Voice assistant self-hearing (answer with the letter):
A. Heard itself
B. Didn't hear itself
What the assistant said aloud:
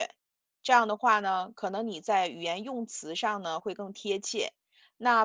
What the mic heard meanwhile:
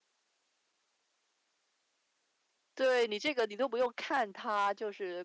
B